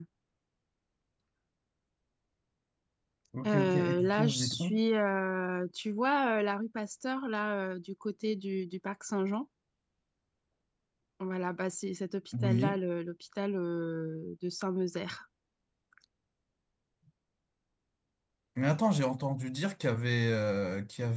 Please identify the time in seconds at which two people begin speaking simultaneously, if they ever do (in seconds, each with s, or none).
3.5 s